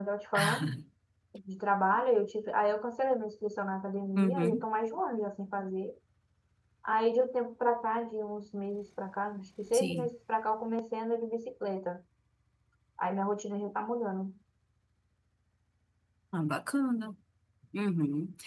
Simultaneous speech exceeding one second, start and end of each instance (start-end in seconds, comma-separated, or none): none